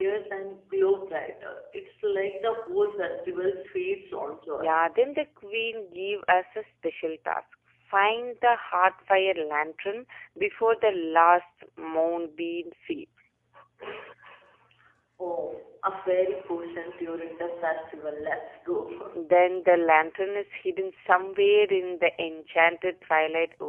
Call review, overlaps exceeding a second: none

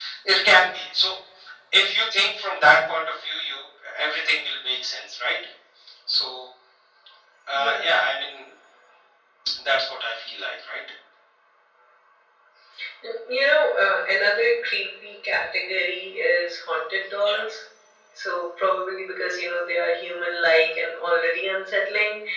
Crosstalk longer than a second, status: none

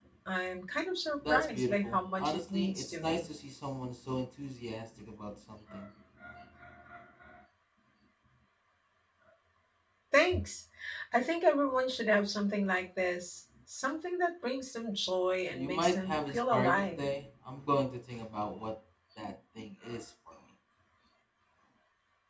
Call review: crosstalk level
present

